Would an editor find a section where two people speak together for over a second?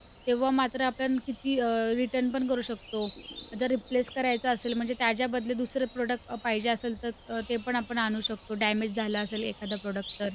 No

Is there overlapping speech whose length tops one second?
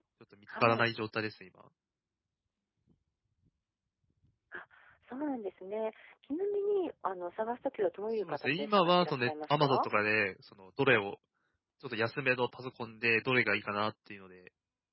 Yes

